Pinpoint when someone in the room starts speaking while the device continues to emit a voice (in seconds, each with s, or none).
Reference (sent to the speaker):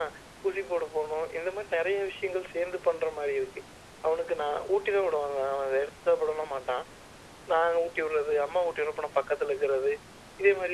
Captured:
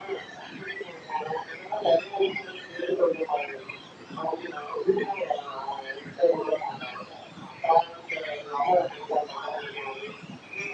none